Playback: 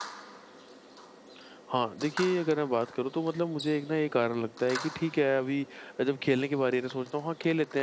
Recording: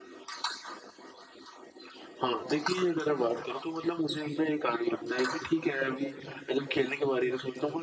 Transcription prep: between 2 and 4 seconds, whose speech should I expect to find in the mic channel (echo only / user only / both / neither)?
echo only